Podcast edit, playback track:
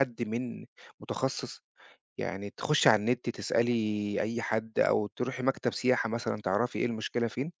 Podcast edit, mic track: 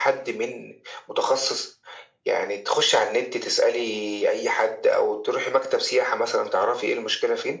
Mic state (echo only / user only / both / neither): echo only